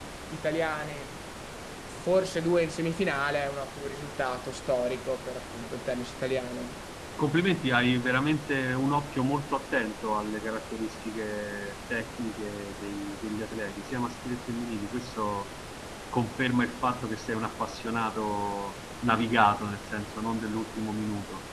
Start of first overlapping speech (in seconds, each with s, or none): none